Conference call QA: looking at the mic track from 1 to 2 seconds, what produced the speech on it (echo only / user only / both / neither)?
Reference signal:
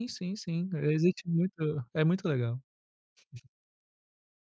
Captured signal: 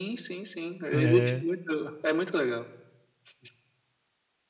both